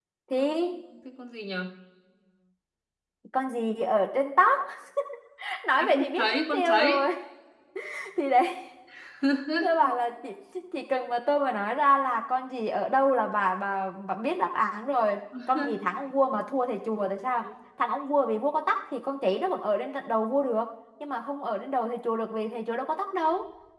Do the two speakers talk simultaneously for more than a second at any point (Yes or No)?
Yes